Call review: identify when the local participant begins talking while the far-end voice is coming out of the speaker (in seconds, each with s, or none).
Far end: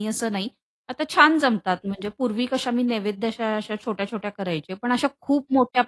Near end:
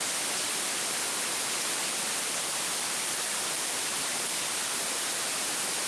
none